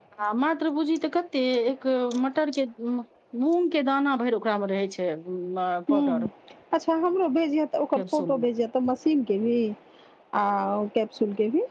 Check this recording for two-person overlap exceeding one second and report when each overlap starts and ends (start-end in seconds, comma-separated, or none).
none